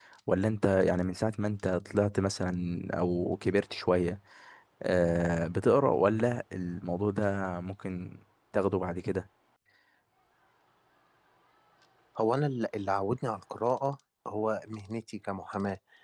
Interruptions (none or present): none